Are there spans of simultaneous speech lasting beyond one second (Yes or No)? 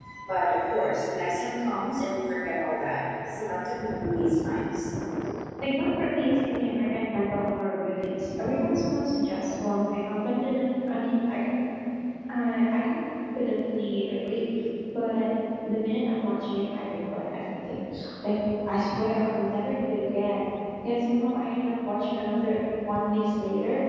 No